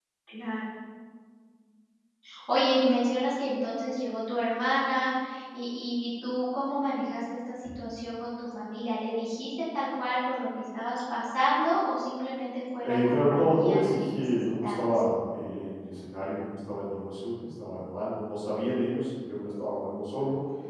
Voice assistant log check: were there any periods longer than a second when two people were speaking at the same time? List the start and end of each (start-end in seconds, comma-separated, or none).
12.8-14.9